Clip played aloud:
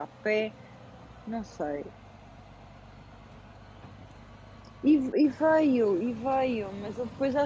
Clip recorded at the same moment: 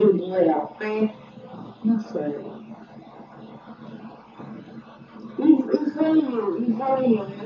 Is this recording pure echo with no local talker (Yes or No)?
Yes